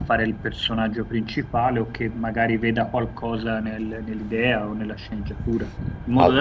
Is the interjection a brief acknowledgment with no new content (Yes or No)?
Yes